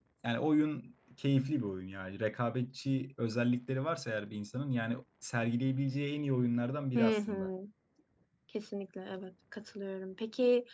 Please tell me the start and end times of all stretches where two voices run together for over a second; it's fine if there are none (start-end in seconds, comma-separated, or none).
none